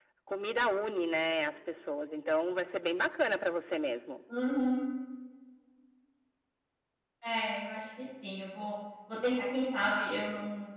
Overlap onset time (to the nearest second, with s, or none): none